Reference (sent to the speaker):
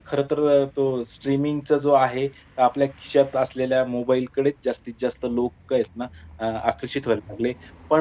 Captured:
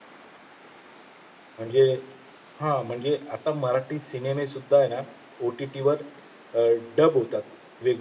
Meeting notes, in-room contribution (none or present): present